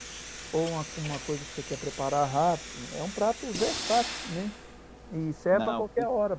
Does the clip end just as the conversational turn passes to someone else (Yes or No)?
No